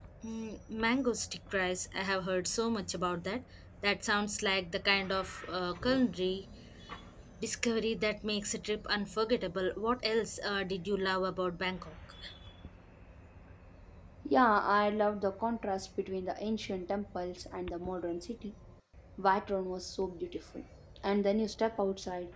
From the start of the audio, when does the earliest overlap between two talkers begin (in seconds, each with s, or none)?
none